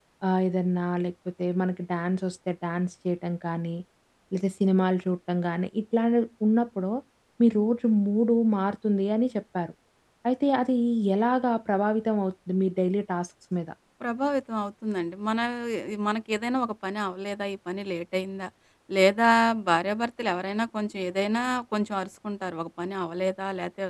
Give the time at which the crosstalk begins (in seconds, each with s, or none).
none